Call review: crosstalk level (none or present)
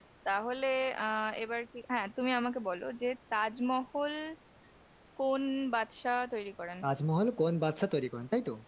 none